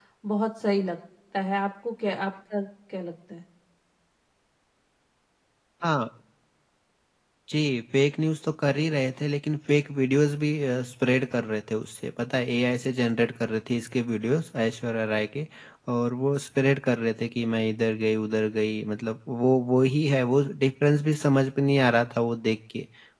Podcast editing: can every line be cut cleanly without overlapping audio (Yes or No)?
Yes